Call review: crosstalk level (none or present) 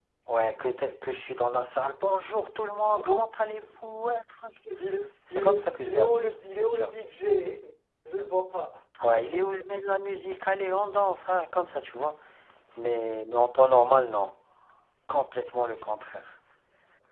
present